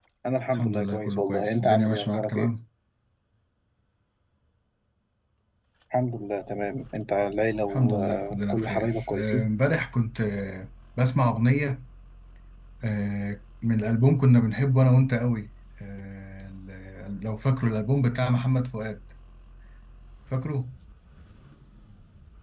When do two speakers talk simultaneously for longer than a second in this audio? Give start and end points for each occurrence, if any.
0.6-2.5, 7.7-9.5

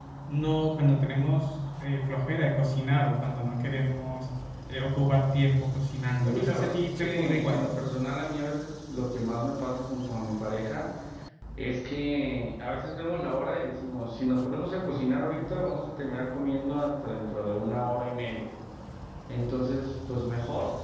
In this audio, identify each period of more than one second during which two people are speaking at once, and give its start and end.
6.3-7.7

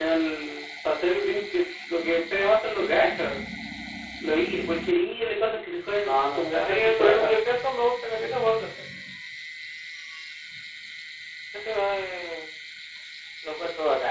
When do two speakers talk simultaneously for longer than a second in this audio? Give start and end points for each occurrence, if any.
6.1-7.3

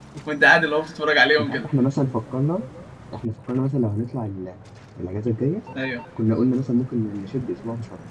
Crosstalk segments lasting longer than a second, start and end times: none

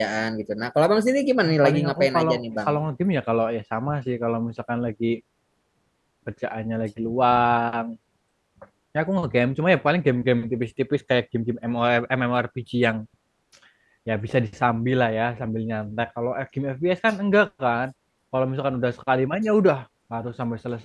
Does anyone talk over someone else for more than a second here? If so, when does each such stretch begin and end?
1.4-2.7

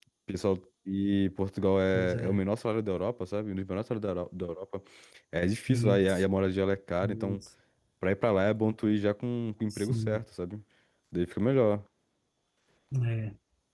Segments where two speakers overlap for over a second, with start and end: none

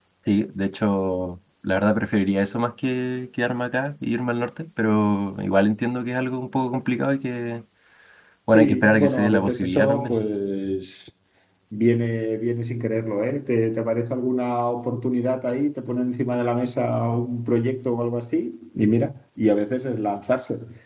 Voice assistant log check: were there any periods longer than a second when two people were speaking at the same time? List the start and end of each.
8.5-10.1

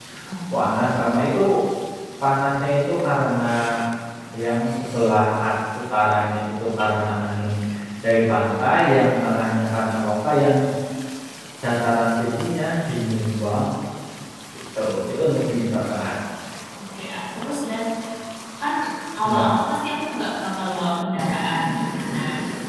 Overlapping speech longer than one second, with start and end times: none

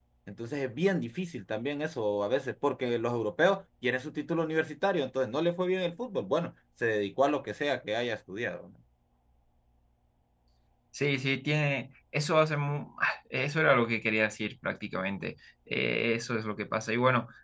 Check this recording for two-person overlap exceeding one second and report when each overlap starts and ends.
none

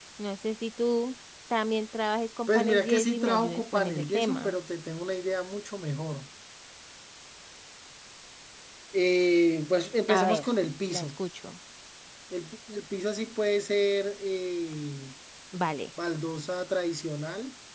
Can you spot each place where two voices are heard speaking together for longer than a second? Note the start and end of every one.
2.5-4.5

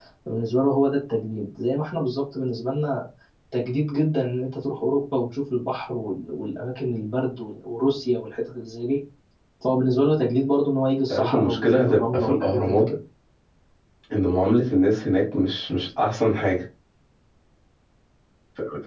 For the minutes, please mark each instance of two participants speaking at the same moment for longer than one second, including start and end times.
11.1-12.9

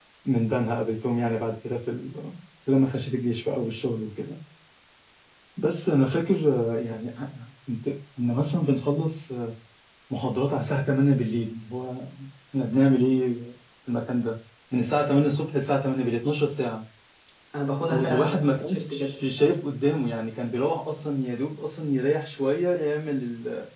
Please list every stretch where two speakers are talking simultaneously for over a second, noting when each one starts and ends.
17.9-19.1

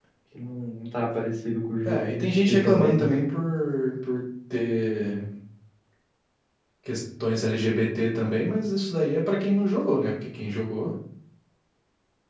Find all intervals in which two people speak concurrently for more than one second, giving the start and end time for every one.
1.8-3.1

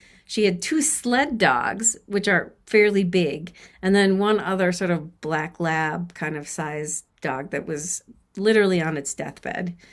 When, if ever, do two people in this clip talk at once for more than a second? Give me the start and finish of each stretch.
none

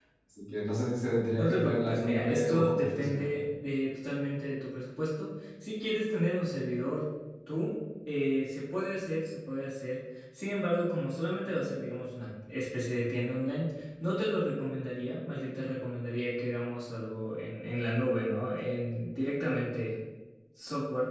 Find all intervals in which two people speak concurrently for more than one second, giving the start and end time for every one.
1.4-3.4

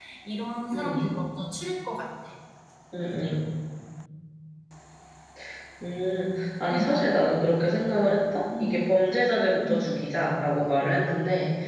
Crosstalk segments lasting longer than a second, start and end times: none

